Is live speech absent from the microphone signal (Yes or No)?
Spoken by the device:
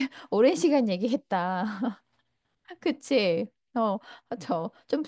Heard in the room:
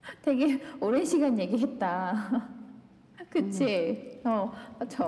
No